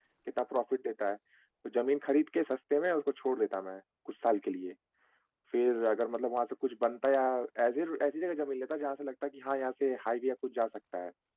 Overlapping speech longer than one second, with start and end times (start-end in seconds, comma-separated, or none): none